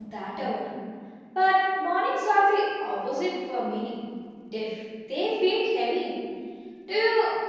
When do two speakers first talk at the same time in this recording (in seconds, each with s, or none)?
none